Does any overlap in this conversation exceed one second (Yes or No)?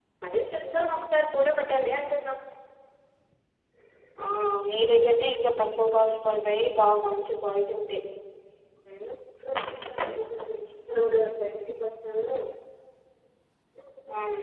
No